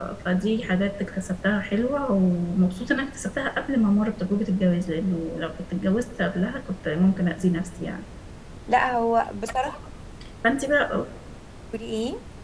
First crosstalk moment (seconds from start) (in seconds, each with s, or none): none